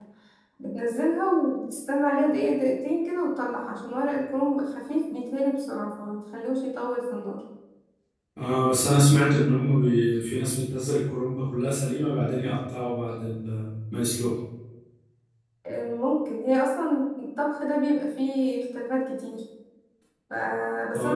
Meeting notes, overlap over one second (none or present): none